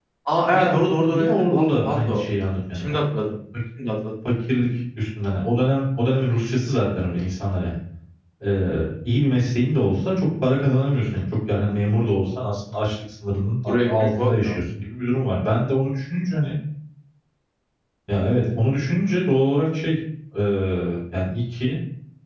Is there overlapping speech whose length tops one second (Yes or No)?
Yes